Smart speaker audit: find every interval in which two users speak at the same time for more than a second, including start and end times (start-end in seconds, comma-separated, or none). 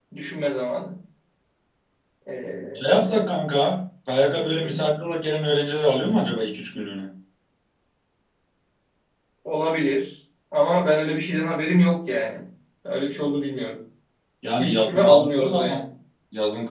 14.6-15.8